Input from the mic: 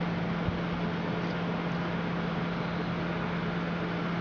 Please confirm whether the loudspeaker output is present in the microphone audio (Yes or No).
No